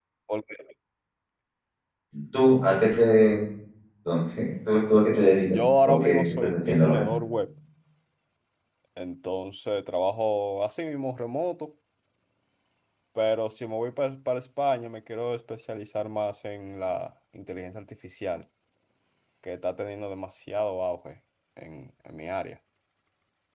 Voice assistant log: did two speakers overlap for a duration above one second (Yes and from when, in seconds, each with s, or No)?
Yes, from 5.5 s